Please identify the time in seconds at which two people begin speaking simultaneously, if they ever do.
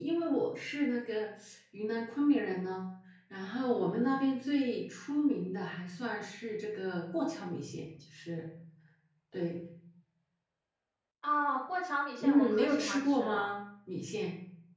12.2 s

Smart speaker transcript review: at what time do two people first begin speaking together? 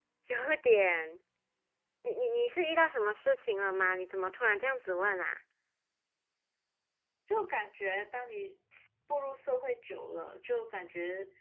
none

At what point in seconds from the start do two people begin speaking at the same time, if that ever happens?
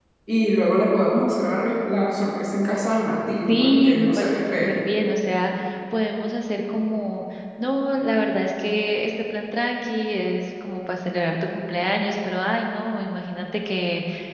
3.5 s

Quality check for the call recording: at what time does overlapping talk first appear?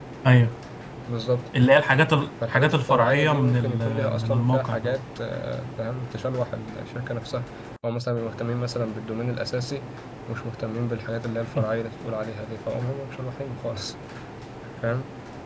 2.5 s

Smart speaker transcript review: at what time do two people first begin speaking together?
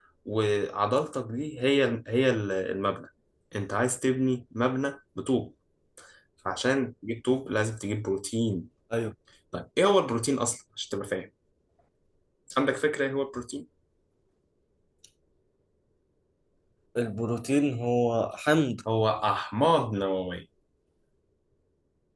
none

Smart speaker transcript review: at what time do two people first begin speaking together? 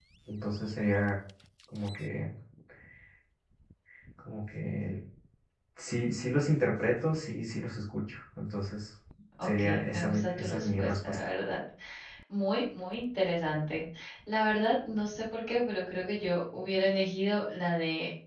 9.4 s

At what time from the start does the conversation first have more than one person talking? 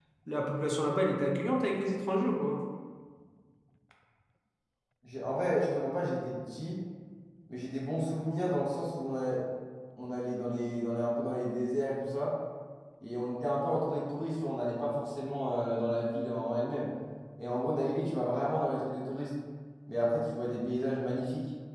none

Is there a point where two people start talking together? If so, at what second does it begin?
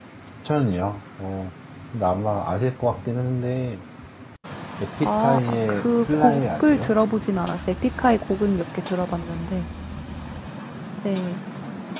5.0 s

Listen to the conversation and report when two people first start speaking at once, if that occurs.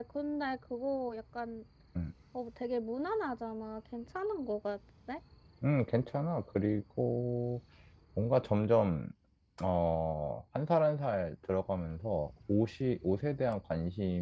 none

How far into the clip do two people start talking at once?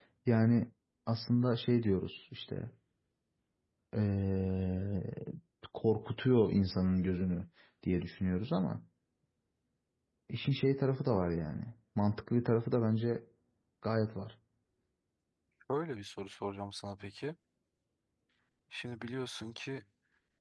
none

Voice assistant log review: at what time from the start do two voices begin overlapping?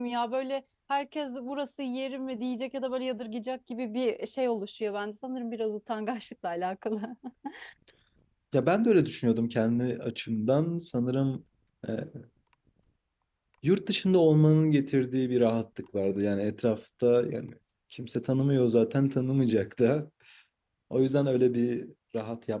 none

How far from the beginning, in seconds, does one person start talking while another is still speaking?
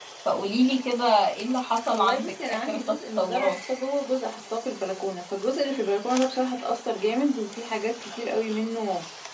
1.9 s

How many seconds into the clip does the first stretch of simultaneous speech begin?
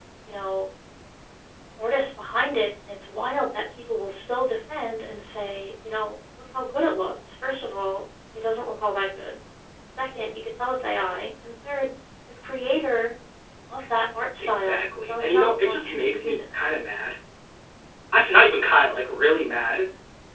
14.4 s

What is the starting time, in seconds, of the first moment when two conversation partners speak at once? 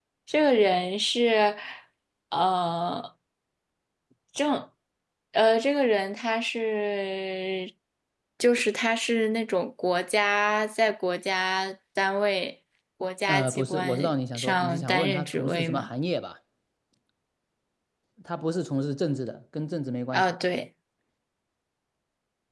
13.3 s

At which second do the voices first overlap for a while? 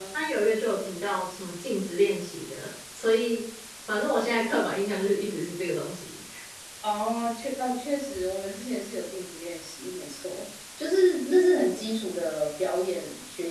none

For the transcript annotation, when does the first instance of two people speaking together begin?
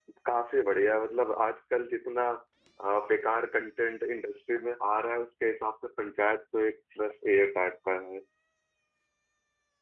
none

